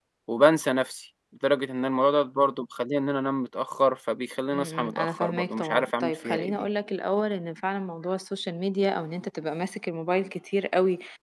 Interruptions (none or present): present